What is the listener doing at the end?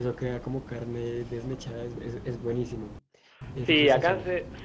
taking over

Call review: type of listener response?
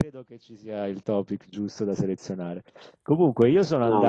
listening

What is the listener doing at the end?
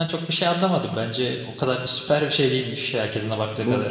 taking over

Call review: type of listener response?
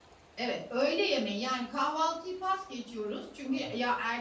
listening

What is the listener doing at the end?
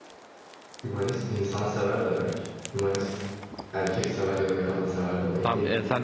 taking over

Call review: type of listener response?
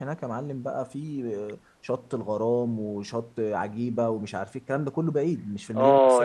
taking over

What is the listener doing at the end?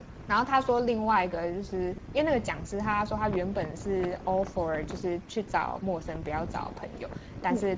listening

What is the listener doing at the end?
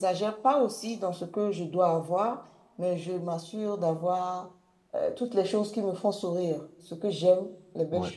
listening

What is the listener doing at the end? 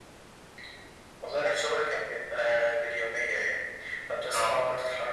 listening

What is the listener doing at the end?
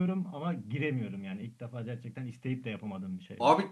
taking over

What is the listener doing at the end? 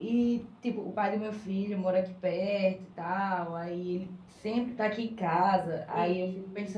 listening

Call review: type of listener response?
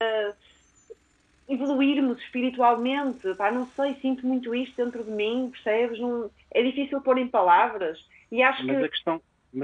taking over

